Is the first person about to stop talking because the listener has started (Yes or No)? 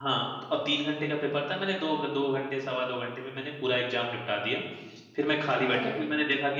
No